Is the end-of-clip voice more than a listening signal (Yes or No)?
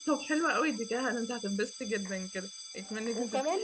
Yes